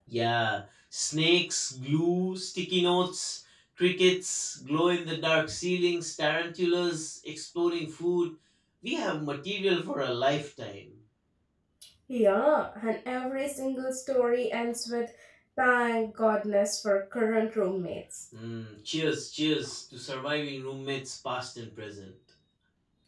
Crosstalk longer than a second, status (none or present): none